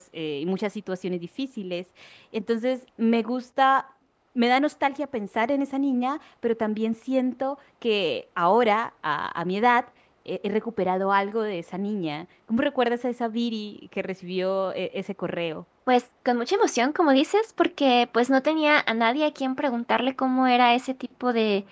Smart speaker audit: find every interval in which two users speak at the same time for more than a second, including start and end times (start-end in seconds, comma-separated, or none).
none